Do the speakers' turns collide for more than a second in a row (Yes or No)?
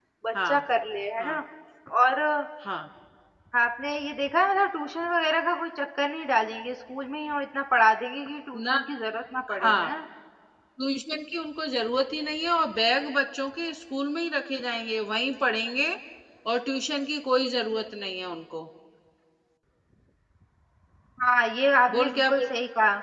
No